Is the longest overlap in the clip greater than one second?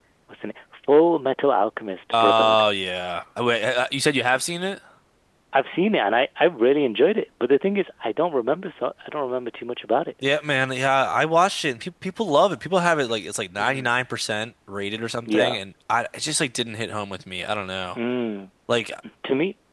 No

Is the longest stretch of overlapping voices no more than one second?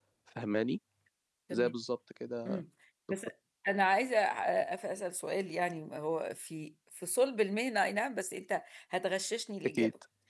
Yes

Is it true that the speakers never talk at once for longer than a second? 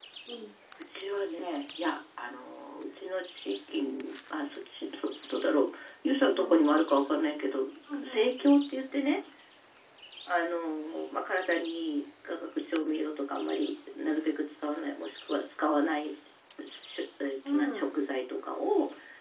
Yes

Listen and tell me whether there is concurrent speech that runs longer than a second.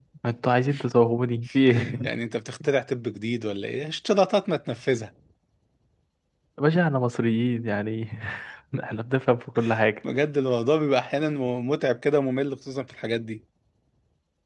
No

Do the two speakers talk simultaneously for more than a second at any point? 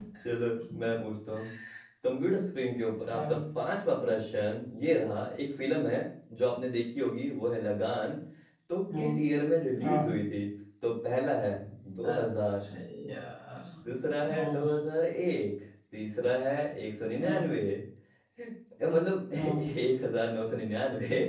No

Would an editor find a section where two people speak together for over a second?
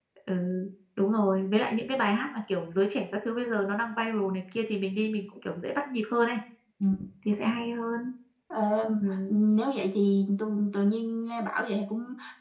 No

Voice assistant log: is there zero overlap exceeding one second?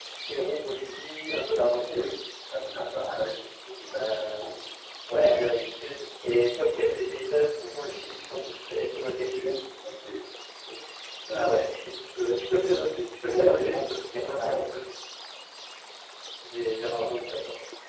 No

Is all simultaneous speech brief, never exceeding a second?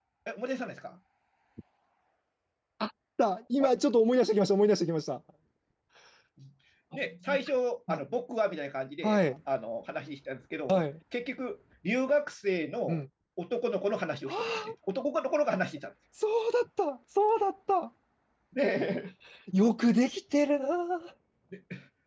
Yes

